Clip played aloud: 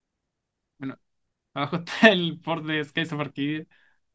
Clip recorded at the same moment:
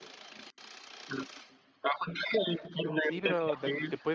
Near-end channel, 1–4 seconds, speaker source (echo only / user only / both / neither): both